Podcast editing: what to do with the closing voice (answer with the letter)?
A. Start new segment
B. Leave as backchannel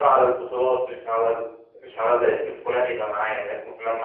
B